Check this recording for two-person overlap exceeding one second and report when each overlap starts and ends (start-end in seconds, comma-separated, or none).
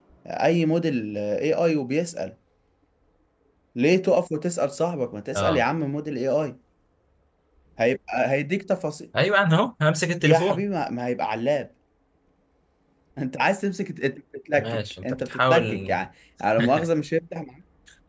14.6-15.9